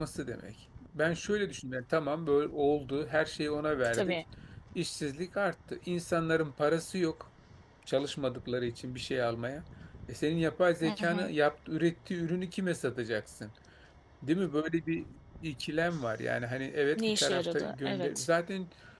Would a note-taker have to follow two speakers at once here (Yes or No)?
Yes